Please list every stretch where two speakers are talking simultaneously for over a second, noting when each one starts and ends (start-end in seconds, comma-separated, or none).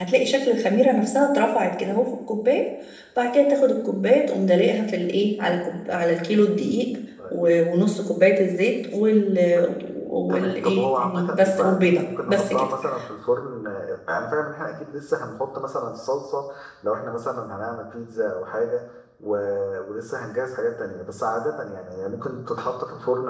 10.3-12.7